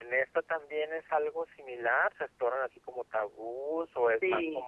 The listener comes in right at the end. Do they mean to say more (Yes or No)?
Yes